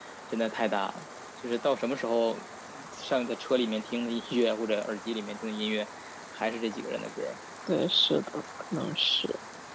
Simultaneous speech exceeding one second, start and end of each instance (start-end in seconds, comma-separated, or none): none